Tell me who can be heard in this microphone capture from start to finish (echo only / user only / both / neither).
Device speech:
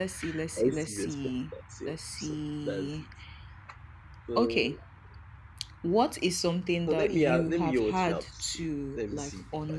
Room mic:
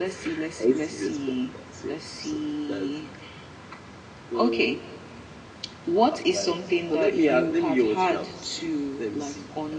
both